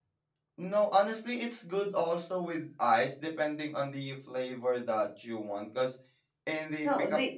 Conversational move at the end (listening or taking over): taking over